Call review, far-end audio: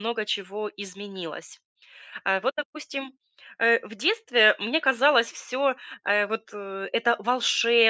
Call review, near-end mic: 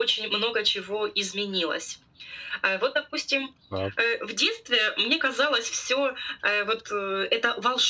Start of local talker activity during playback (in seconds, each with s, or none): 3.7 s